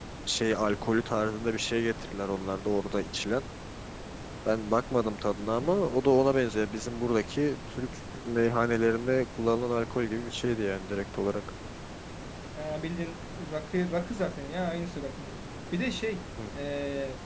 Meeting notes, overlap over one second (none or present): none